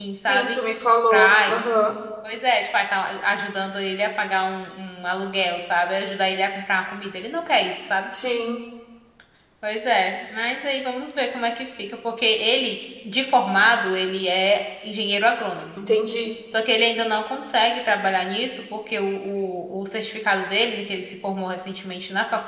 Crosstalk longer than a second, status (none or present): none